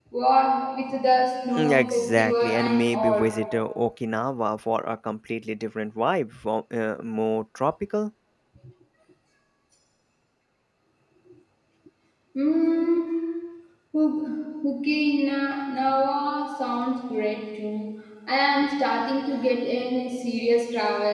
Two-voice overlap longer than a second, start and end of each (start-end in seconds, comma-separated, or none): 1.6-3.3